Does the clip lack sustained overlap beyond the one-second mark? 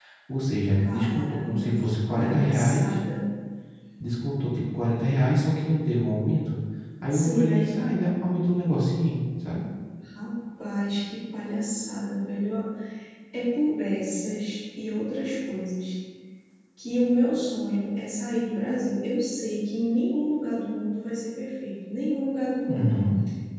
No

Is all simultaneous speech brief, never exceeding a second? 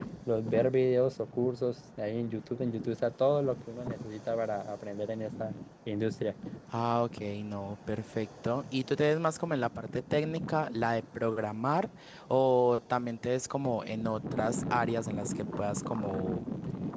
Yes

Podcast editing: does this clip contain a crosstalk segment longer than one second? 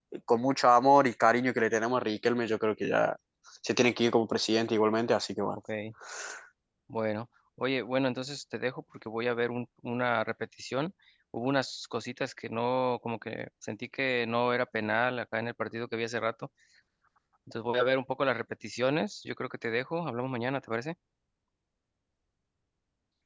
No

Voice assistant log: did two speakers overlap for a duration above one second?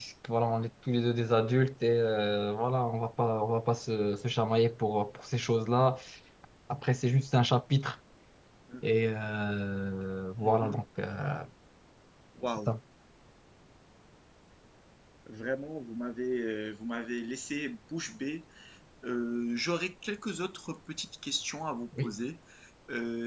No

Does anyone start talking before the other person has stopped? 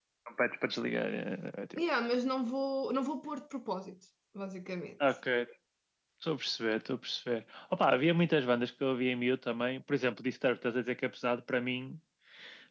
No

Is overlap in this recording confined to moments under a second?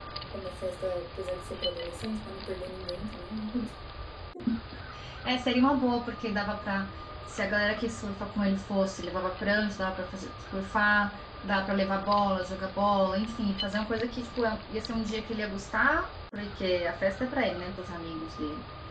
Yes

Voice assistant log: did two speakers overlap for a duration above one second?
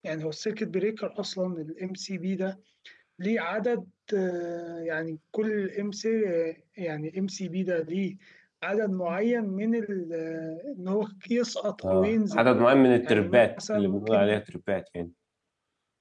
Yes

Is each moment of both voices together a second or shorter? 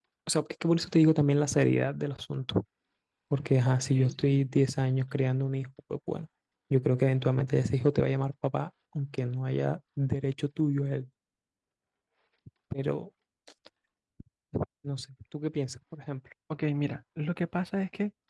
Yes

